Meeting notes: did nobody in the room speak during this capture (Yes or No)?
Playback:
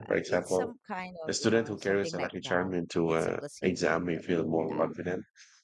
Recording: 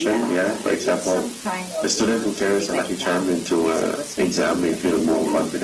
Yes